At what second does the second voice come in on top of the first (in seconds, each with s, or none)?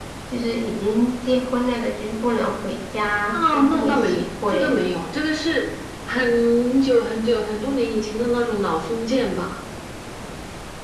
3.3 s